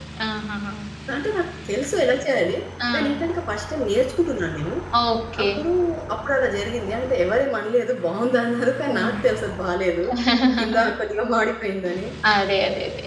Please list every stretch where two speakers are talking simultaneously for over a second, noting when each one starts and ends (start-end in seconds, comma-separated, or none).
none